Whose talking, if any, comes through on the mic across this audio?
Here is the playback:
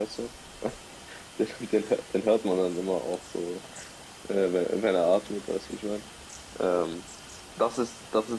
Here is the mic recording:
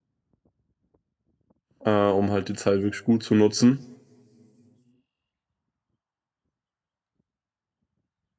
user only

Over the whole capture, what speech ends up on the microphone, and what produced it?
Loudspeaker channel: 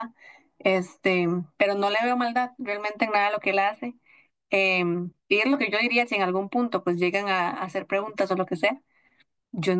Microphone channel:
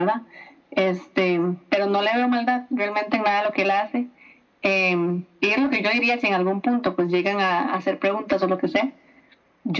echo only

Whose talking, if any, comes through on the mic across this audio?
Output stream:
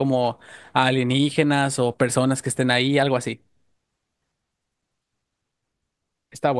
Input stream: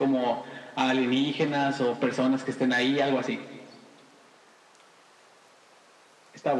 echo only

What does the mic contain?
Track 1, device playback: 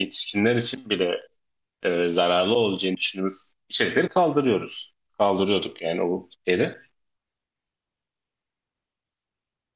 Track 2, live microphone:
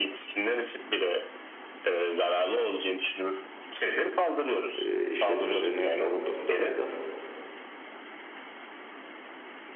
both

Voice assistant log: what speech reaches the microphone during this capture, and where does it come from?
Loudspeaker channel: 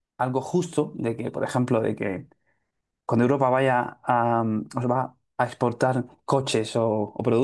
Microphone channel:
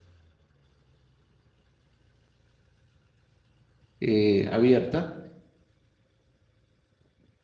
user only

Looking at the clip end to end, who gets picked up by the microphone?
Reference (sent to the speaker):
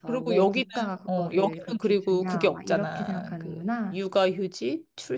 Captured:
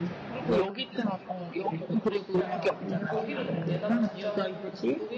both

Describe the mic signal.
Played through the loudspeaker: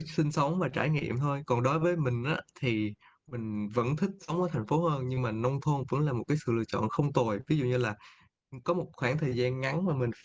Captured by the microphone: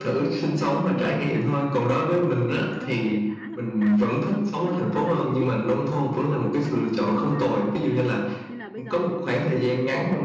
both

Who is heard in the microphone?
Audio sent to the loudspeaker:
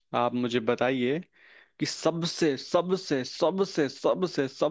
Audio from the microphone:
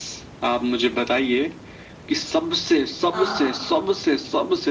both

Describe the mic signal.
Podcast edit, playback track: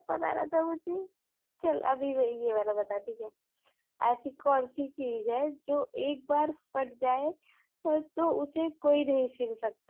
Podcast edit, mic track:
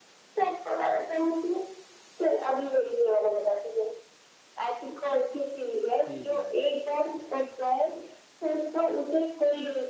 both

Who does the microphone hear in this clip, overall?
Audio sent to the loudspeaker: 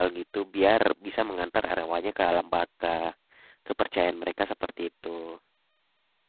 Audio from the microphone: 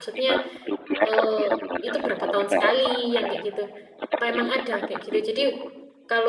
both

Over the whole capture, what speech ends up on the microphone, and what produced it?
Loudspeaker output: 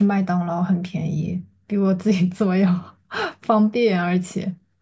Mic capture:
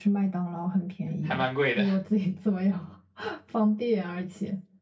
both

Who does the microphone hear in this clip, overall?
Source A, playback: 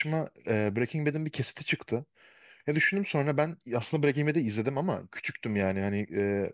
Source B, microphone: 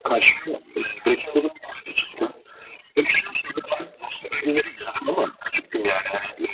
echo only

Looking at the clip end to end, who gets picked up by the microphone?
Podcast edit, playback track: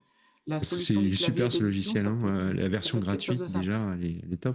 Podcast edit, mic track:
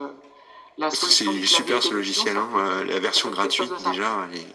echo only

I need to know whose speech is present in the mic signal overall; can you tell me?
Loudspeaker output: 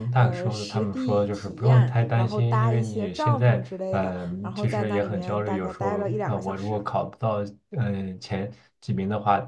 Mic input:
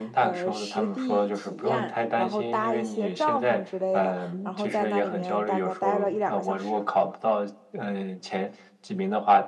echo only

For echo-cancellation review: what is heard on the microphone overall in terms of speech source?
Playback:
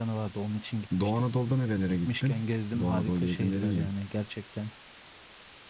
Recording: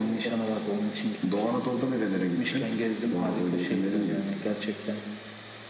echo only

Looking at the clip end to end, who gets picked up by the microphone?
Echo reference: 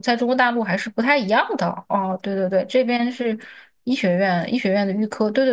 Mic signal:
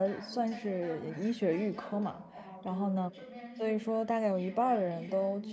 both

